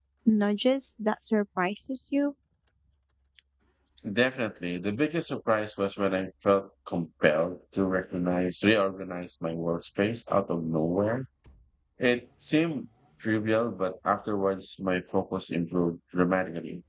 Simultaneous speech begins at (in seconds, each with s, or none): none